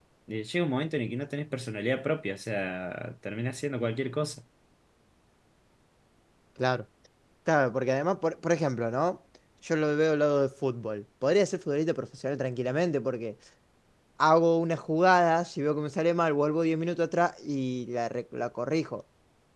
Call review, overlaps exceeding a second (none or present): none